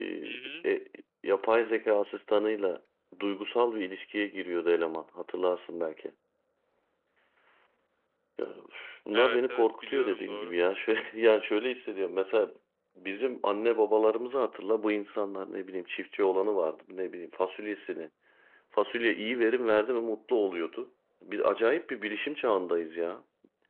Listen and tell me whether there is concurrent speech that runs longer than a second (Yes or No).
Yes